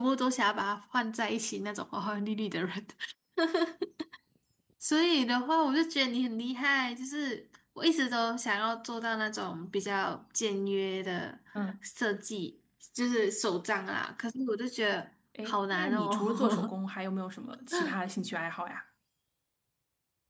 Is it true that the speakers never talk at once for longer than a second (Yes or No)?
No